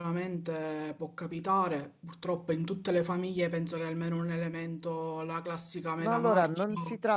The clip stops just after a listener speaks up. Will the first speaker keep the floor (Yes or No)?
No